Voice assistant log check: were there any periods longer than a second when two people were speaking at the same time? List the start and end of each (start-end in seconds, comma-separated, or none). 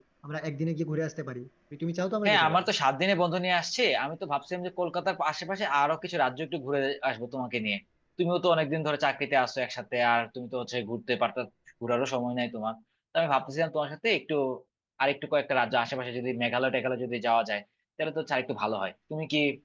none